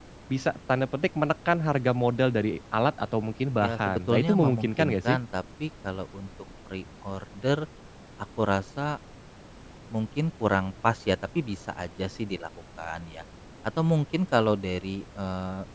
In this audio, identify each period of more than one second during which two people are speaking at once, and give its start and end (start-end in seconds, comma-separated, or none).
3.6-5.2